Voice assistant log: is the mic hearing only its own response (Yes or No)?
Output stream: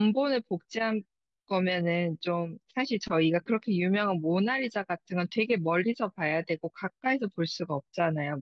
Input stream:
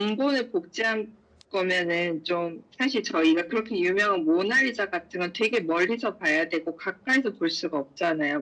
Yes